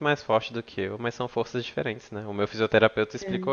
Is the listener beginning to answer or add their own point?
No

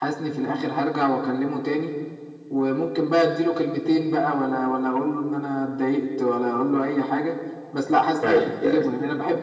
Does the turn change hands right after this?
No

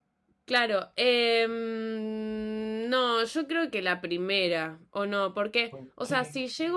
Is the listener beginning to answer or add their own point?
No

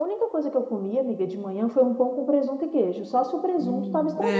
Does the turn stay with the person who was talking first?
No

